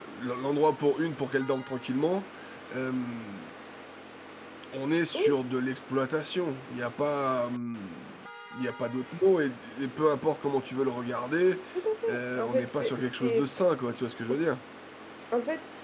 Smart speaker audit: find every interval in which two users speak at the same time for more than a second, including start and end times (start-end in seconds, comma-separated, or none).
12.1-13.5